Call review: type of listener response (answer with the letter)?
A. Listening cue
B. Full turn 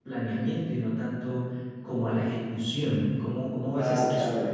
B